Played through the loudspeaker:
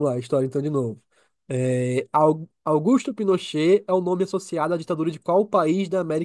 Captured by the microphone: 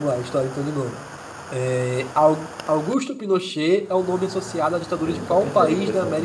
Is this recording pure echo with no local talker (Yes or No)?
No